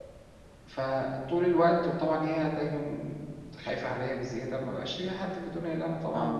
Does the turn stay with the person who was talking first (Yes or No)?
No